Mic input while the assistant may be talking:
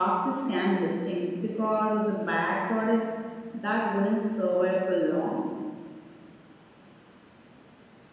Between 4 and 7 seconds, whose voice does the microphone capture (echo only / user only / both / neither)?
echo only